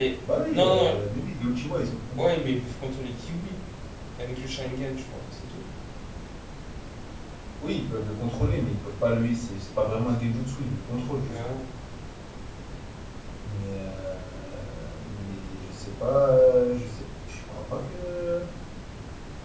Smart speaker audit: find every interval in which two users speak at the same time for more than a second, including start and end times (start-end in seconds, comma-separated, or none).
none